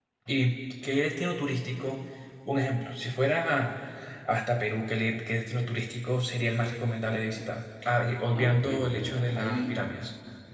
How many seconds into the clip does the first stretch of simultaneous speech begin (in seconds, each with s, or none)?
8.3 s